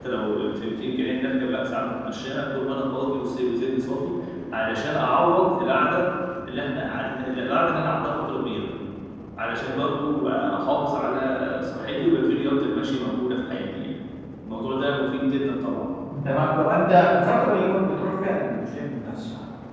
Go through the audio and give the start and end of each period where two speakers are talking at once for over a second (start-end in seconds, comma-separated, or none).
none